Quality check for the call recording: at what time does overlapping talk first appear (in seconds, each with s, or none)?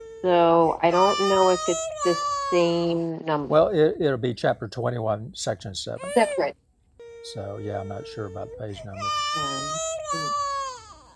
none